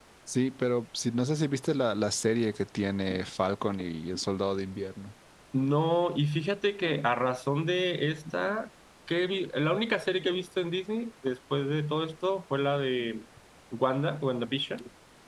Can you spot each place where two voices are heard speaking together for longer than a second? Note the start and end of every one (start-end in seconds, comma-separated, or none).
none